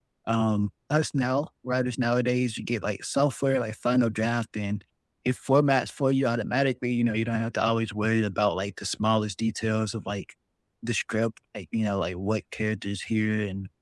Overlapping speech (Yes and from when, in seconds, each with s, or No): No